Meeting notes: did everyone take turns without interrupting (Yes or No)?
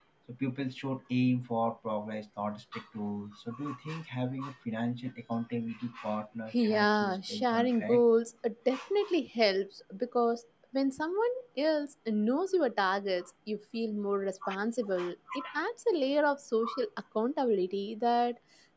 No